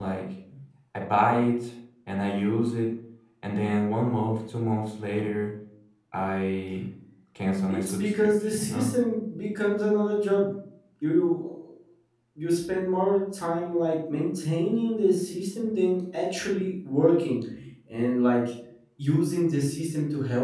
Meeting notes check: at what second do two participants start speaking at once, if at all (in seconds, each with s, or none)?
7.7 s